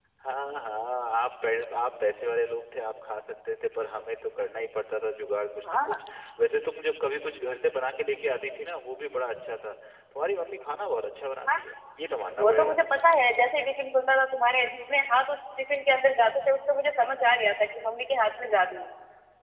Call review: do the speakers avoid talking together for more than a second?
Yes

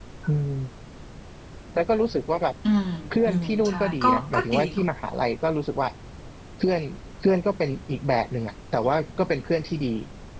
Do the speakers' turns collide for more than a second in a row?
Yes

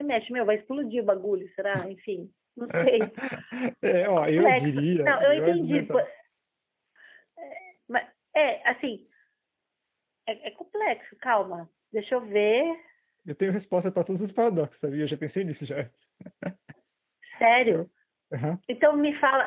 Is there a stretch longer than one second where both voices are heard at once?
Yes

